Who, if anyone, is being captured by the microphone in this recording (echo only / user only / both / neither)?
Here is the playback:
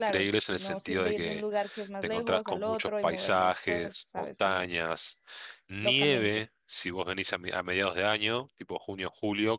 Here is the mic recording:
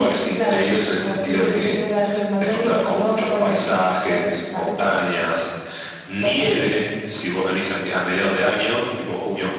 echo only